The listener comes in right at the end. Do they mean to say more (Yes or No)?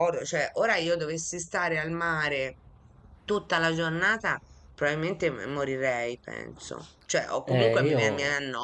No